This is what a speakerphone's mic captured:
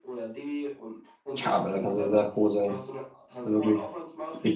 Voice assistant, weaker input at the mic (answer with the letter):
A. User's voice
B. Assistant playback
B